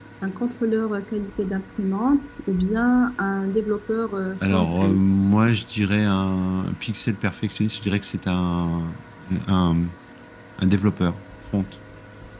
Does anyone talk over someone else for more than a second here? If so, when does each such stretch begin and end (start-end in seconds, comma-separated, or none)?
none